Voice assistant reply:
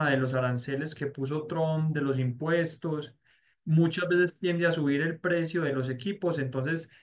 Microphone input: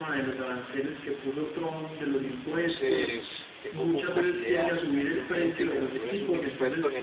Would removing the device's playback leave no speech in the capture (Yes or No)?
No